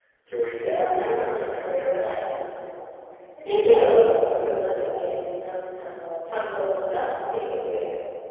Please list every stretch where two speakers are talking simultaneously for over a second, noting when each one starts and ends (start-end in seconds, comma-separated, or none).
0.6-2.2